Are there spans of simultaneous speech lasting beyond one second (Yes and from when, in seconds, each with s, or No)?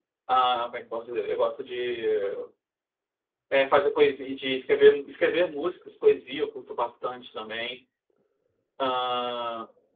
No